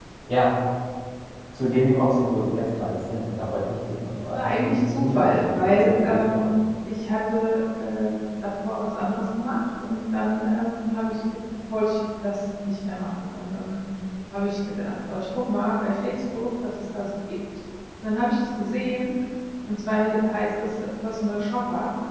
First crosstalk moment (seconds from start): 4.2 s

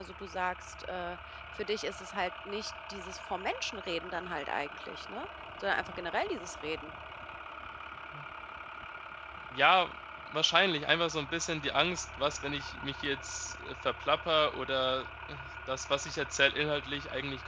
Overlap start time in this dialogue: none

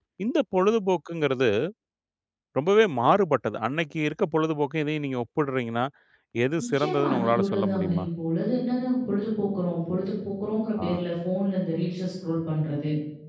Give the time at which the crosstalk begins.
6.6 s

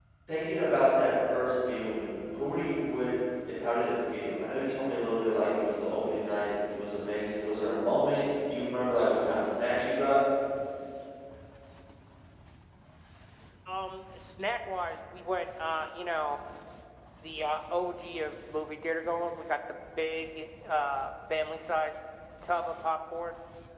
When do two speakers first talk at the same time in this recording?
none

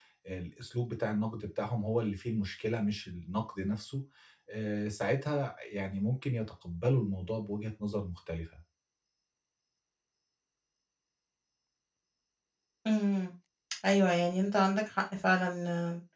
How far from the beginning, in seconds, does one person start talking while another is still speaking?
none

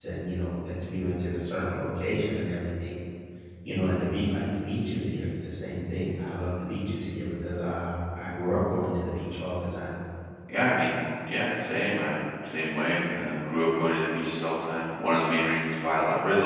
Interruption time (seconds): none

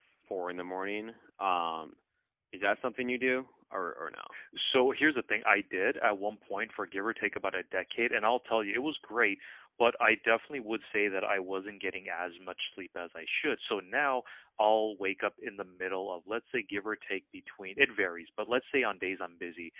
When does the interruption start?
none

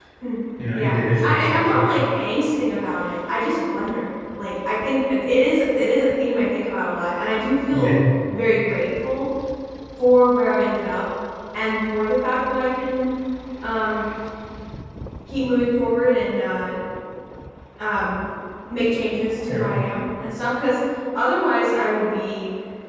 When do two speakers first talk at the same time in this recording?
0.7 s

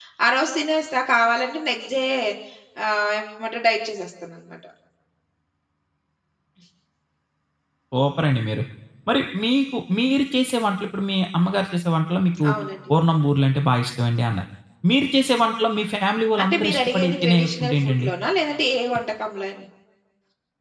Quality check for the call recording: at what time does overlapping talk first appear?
16.4 s

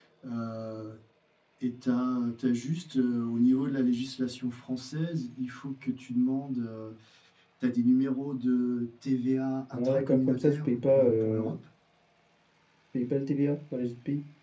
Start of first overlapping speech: 9.7 s

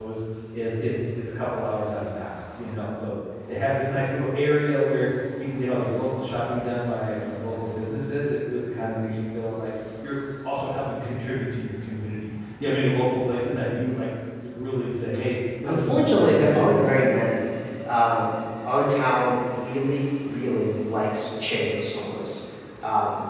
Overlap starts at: 15.6 s

